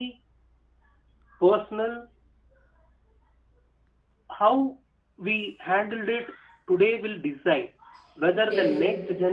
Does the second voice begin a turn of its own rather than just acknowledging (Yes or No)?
No